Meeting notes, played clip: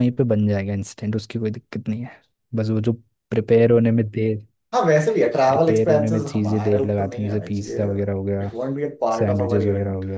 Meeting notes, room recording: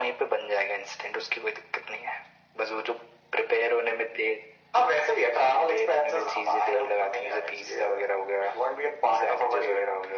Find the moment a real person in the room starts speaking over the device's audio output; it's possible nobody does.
none

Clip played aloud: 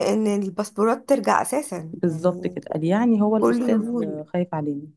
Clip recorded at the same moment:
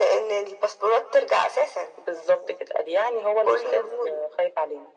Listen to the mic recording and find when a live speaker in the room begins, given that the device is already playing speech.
none

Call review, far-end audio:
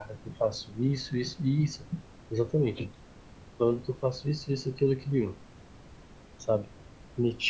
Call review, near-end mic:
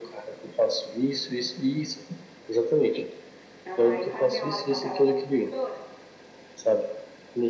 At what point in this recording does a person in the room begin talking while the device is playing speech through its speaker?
3.6 s

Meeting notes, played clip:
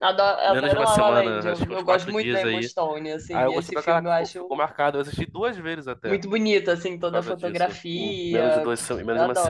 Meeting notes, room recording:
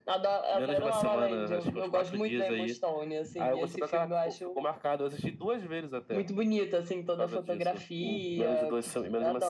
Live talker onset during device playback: none

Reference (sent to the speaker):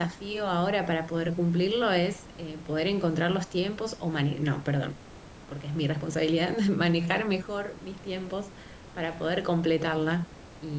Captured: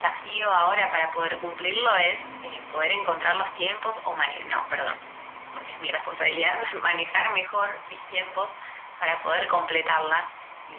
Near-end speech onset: none

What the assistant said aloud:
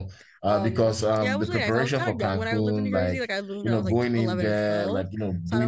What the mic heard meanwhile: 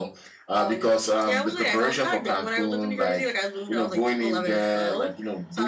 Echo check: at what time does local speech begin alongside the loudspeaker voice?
none

